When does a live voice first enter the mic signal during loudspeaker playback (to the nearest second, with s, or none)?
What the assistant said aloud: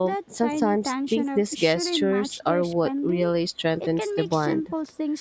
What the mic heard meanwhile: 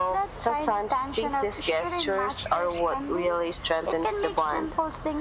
none